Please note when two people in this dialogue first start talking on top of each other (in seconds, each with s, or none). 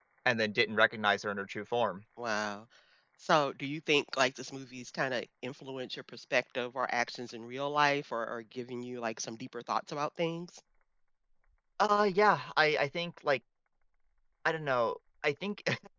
none